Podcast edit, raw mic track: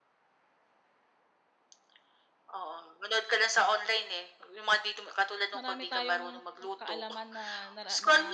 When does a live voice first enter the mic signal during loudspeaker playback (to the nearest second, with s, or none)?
6 s